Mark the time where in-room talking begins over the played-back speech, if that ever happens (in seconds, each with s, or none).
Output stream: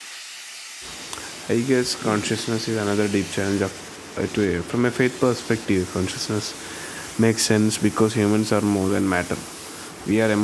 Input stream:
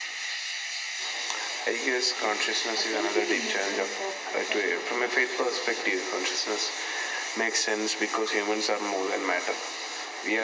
2.8 s